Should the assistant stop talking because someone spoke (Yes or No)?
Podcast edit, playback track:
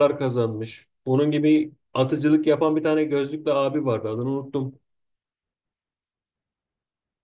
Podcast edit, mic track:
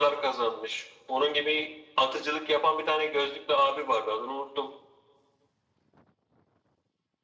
No